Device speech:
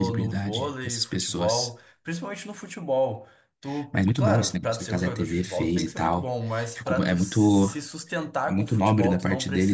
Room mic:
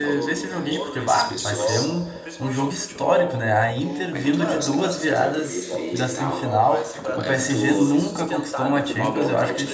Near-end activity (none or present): present